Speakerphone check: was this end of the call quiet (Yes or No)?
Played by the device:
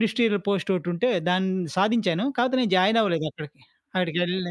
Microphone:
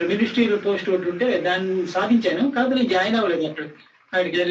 Yes